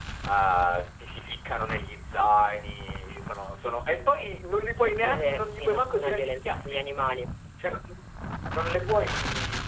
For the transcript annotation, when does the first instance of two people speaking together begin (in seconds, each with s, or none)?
5.0 s